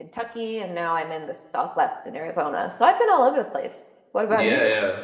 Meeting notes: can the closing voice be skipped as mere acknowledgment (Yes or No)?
No